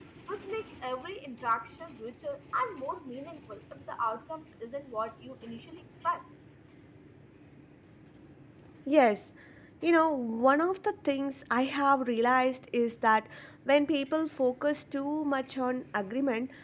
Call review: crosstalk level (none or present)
none